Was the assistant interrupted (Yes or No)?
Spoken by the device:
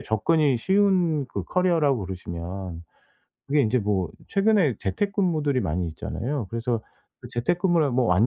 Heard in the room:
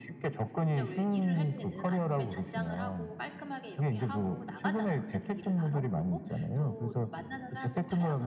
Yes